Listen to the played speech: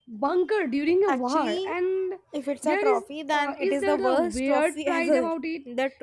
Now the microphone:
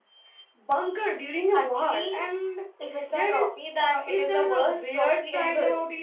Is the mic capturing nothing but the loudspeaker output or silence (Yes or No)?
Yes